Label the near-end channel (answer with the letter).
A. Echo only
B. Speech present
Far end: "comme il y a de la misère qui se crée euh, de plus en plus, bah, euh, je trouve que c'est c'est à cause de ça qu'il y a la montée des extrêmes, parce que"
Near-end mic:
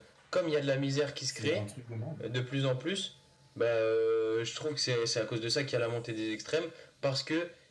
B